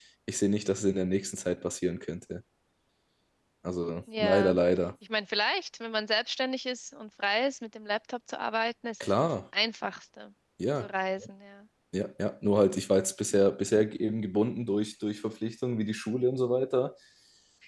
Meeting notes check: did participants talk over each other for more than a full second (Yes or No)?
No